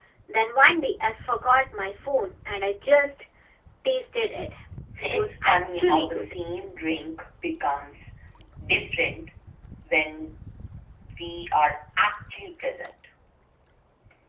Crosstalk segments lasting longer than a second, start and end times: 5.0-6.2

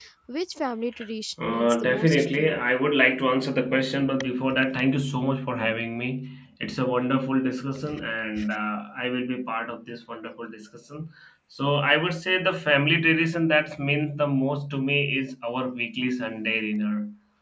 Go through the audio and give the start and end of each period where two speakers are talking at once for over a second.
1.4-2.6

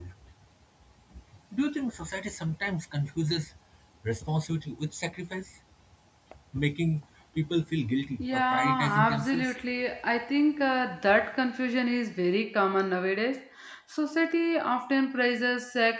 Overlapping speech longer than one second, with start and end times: 8.2-9.5

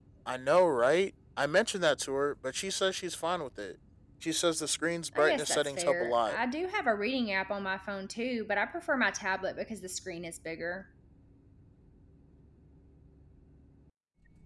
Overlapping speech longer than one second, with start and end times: 5.2-6.4

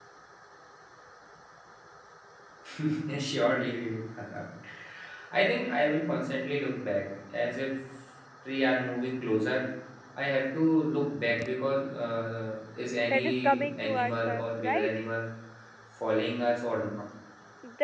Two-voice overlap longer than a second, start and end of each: 13.1-14.9

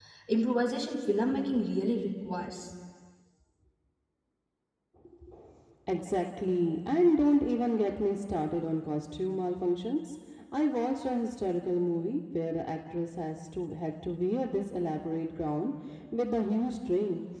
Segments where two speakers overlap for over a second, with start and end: none

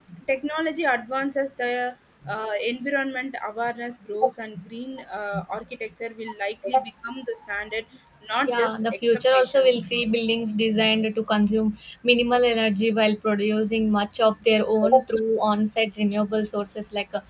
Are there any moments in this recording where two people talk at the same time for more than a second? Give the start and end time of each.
8.5-9.8

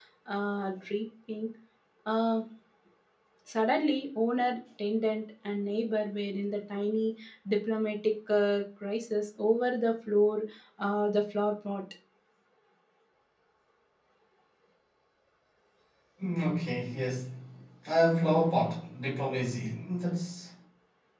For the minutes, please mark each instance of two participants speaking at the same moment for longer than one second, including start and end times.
none

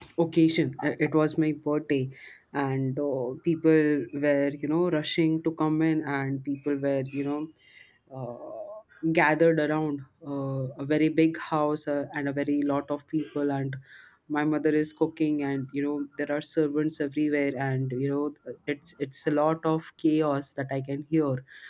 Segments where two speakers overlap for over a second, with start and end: none

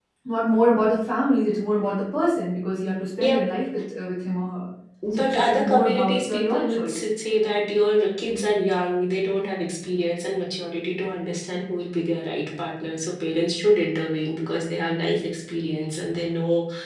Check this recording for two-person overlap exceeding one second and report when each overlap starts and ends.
5.1-7.0

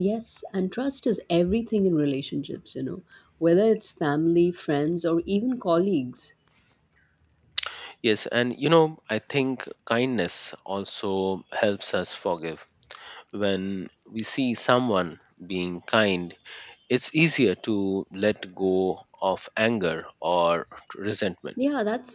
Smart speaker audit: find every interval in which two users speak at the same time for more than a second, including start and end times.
none

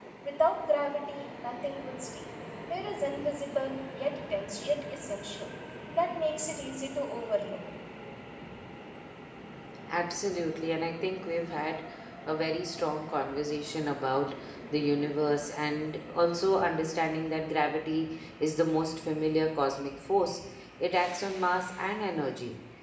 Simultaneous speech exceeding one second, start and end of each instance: none

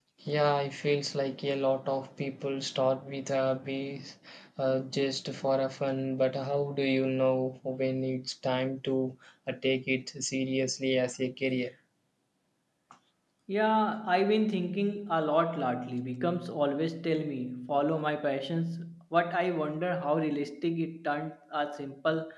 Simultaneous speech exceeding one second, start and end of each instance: none

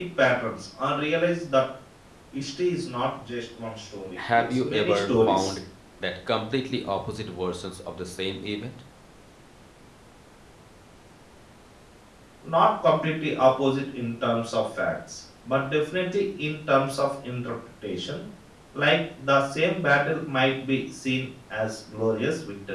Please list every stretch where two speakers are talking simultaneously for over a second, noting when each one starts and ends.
4.2-5.6

